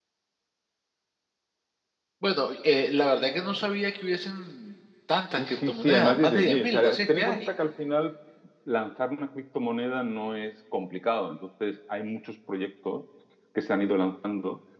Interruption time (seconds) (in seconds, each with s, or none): 5.3 s